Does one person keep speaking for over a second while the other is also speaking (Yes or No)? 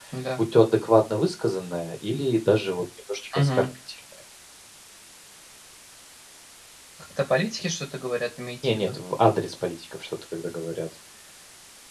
No